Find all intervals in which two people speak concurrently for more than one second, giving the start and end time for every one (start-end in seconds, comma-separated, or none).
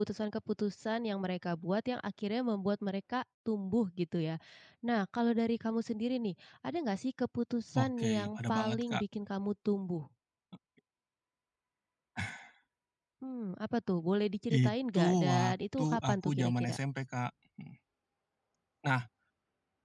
7.8-9.0, 14.7-16.8